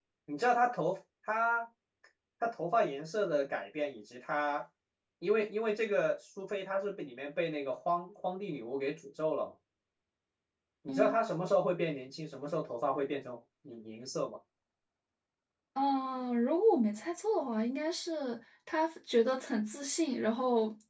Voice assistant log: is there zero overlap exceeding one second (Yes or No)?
Yes